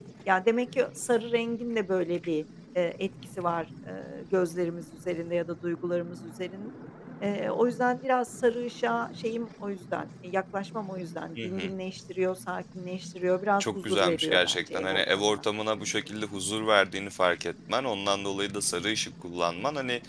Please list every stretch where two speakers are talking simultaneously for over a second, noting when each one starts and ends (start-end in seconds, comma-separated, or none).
13.6-15.4